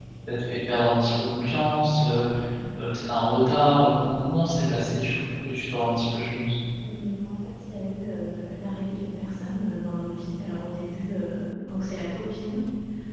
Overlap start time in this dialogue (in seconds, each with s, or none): none